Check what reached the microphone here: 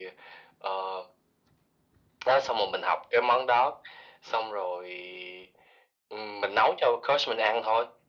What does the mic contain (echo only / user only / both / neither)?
echo only